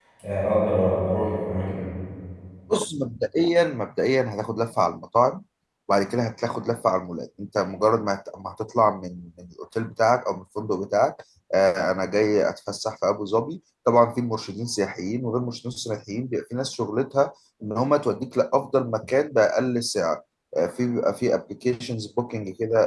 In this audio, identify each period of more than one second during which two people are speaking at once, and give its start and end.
none

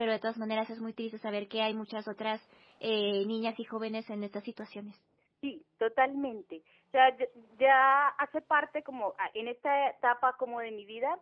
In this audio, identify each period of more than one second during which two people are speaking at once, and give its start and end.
none

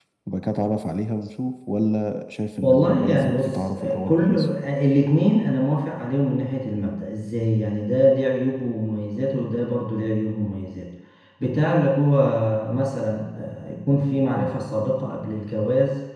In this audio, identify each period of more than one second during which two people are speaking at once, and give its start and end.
2.6-4.5

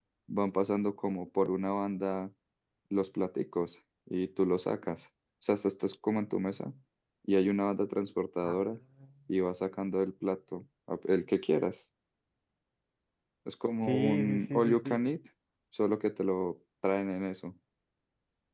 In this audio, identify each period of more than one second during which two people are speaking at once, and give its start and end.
13.8-15.1

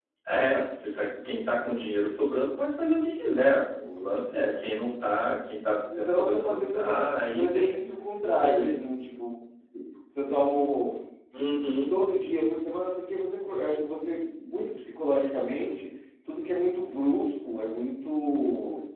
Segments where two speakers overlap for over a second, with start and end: 5.9-7.9

